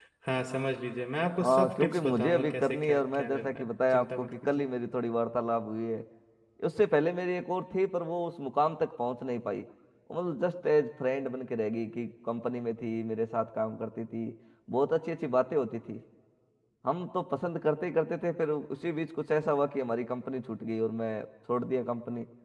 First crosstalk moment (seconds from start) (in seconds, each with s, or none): 1.4 s